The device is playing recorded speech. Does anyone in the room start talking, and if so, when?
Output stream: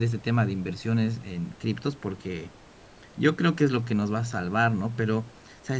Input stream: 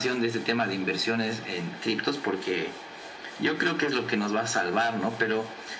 none

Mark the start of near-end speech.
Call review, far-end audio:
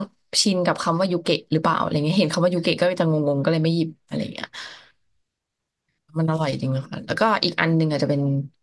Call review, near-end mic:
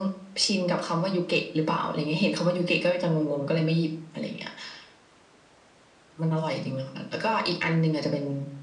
none

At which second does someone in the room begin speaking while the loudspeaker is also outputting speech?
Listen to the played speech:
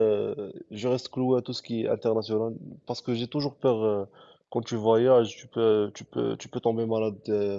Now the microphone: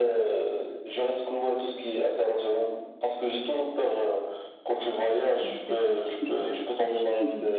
5.4 s

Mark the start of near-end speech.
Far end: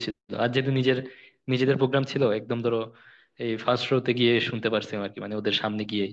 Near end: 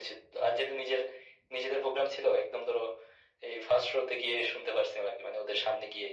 none

